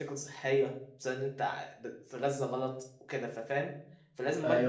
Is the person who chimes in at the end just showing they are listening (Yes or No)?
Yes